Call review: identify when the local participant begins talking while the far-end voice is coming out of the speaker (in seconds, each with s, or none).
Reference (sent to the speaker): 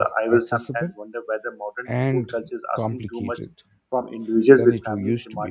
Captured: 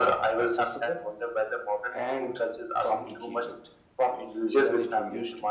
none